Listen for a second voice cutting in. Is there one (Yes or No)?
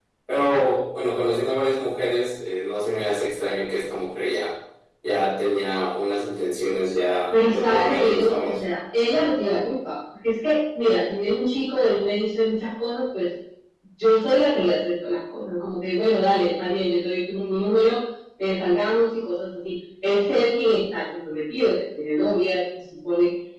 Yes